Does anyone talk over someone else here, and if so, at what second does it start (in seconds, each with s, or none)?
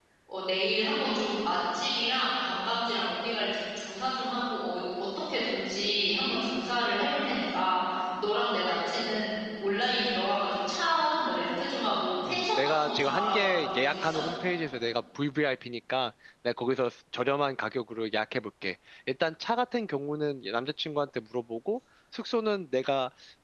12.3 s